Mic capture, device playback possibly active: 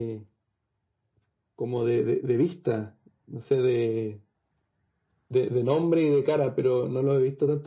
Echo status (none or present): present